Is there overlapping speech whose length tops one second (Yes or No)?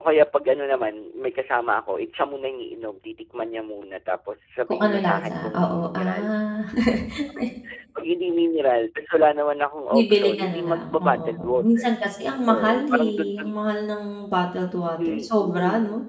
Yes